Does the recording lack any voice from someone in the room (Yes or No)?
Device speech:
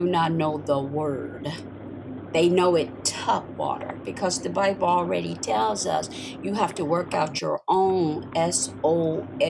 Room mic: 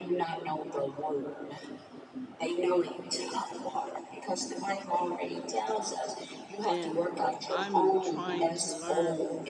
No